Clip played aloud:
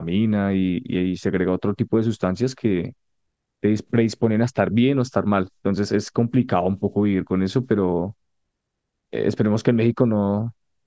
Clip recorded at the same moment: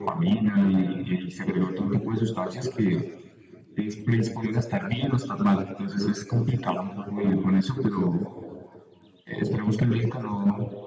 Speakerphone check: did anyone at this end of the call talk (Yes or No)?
No